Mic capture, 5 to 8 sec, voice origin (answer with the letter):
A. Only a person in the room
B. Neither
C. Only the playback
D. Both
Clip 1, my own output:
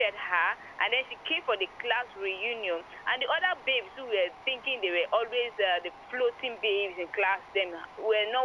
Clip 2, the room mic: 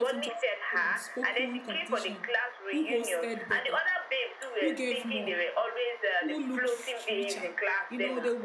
D